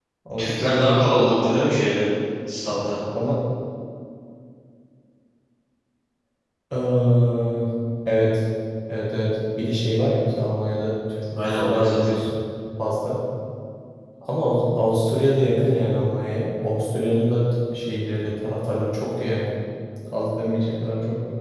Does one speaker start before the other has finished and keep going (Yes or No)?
Yes